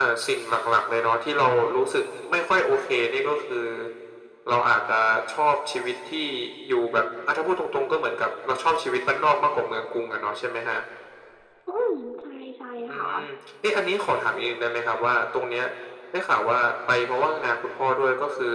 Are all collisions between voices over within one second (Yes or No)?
Yes